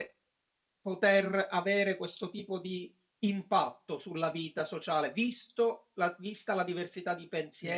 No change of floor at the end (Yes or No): Yes